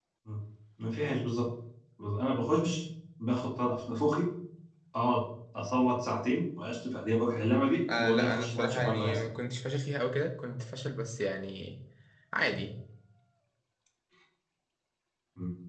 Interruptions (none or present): present